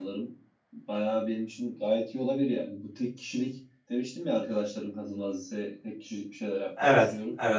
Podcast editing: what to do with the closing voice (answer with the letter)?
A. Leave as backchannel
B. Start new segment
A